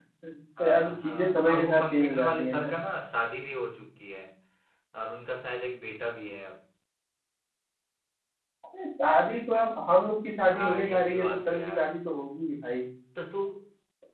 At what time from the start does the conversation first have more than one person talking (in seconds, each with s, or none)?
0.6 s